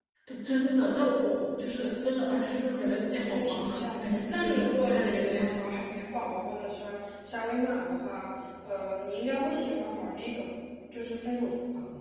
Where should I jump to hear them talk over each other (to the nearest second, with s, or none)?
3 s